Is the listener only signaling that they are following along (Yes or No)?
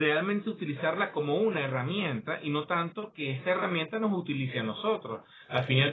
Yes